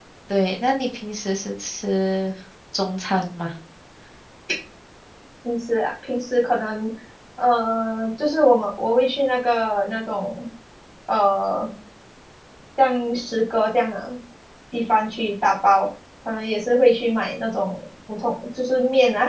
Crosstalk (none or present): none